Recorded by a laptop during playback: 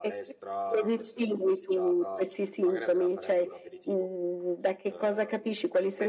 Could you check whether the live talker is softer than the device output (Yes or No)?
Yes